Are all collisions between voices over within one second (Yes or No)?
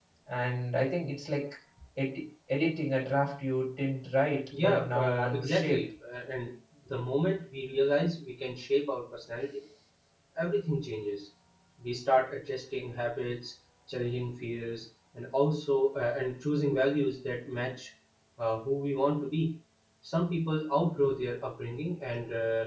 No